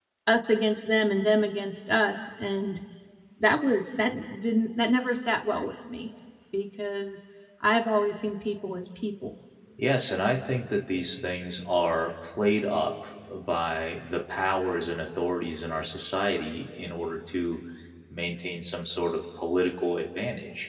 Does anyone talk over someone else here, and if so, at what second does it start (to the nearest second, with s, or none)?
none